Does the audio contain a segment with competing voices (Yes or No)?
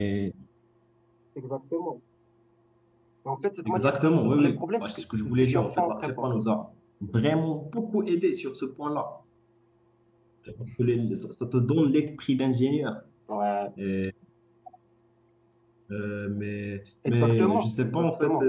Yes